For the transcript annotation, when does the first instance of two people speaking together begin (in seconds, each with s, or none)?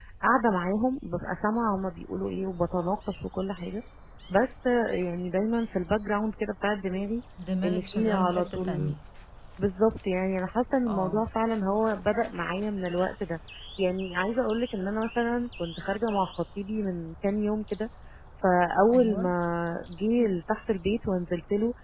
7.7 s